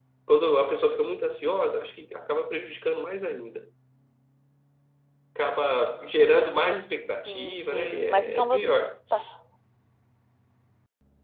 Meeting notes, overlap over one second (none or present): present